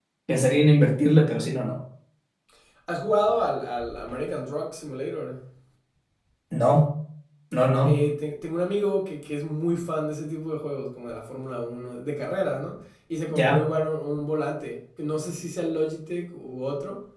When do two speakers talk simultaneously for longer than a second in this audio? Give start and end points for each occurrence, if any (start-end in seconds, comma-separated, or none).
none